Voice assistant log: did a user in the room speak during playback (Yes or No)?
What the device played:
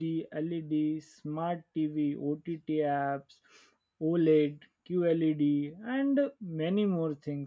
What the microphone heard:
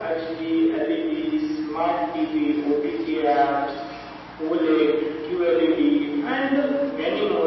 No